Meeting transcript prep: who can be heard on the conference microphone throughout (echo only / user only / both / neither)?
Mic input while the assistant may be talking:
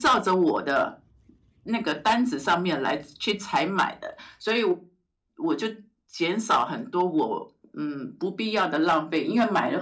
echo only